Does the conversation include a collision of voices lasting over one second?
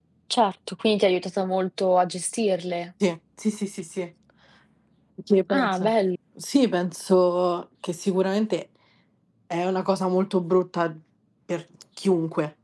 No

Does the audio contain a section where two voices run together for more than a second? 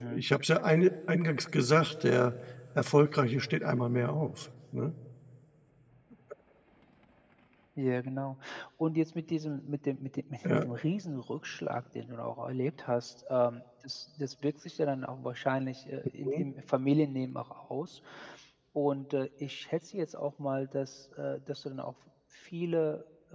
No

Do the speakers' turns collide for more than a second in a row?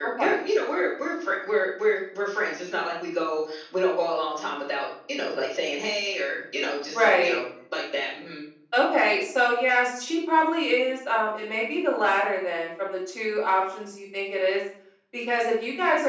No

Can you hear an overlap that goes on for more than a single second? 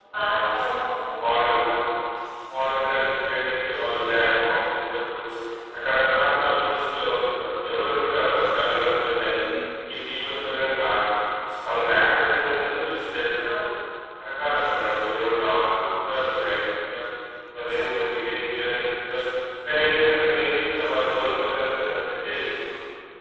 No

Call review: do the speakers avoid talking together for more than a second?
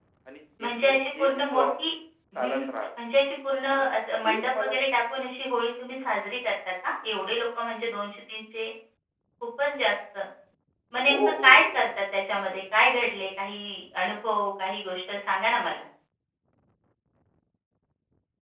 No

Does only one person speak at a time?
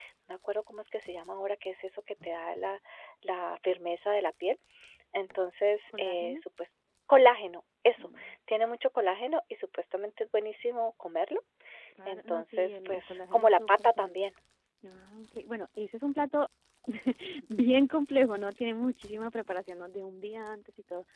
No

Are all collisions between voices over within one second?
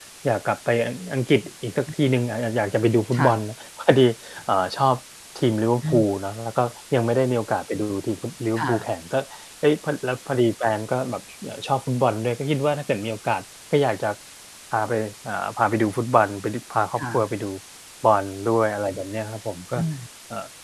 Yes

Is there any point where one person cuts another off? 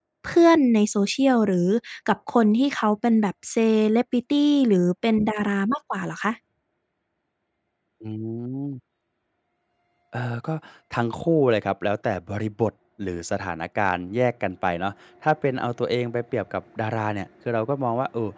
No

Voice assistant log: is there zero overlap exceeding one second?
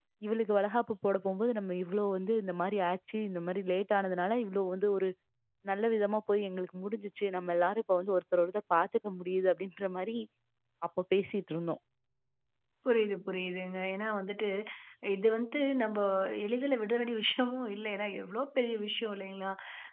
Yes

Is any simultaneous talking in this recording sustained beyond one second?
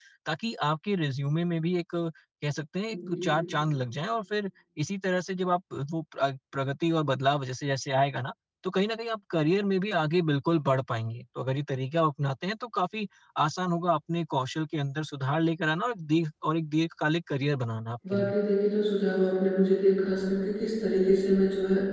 No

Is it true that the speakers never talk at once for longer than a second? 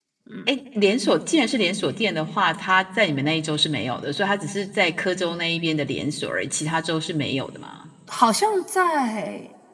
Yes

